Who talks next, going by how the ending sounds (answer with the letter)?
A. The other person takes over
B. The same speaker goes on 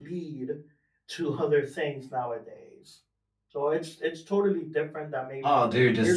A